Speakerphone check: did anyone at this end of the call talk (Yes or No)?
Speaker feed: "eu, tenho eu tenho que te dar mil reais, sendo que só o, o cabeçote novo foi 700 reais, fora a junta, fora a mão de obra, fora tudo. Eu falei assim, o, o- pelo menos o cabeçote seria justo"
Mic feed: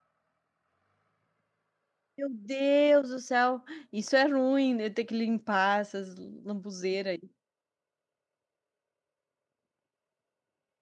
Yes